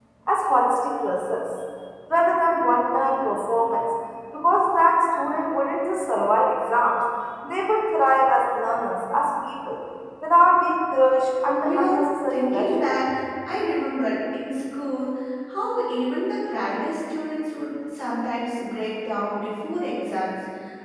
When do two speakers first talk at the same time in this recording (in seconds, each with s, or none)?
11.6 s